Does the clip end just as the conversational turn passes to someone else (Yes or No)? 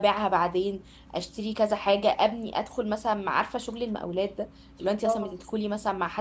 No